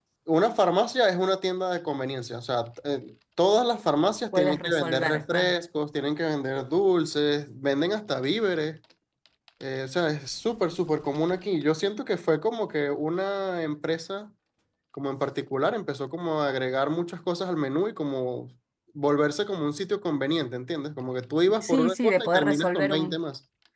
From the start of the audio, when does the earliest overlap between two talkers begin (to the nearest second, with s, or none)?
4 s